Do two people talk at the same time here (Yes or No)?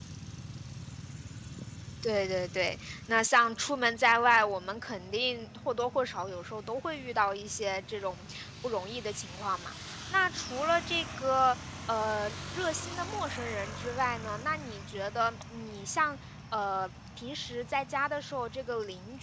No